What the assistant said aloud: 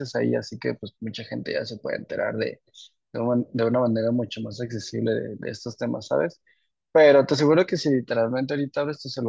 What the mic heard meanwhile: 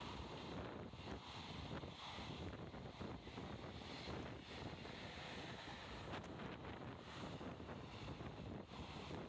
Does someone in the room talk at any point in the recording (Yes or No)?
No